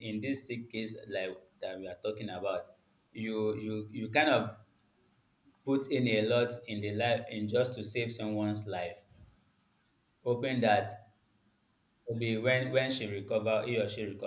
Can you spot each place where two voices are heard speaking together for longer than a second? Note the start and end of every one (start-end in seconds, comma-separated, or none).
none